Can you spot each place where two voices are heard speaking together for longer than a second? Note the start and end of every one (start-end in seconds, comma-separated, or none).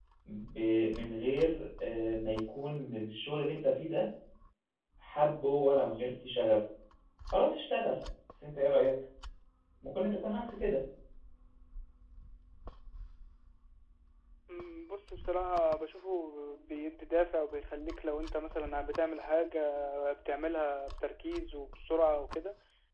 none